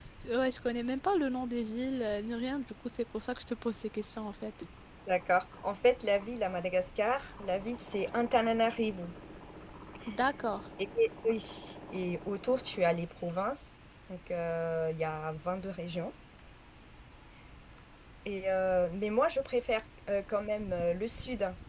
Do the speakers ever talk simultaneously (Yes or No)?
No